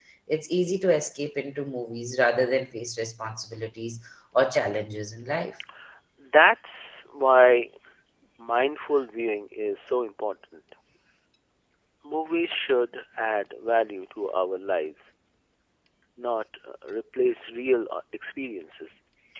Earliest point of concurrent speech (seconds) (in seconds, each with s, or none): none